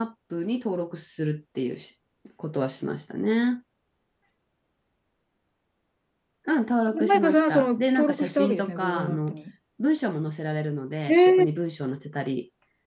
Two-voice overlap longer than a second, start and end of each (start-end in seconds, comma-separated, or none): 7.0-9.4